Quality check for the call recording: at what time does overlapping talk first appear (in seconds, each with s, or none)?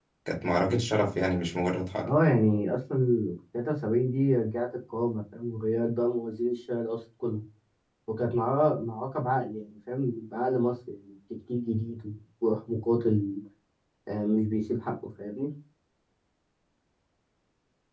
none